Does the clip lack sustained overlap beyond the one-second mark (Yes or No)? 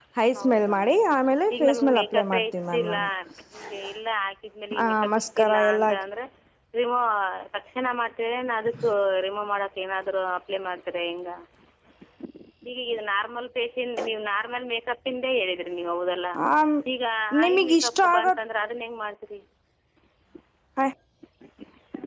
No